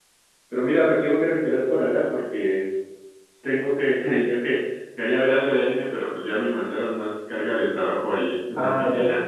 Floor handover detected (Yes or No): Yes